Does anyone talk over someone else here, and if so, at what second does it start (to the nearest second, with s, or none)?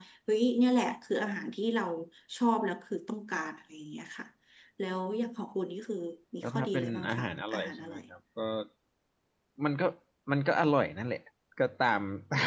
6 s